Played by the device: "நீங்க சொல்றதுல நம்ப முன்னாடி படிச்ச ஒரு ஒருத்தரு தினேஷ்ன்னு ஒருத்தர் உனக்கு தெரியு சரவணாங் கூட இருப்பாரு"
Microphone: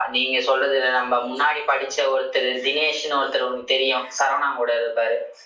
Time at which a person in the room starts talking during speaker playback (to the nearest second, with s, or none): none